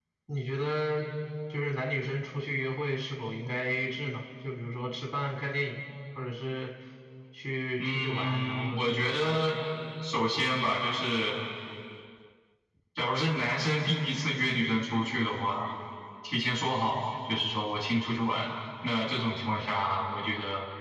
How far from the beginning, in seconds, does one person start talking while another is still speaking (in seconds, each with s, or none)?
7.8 s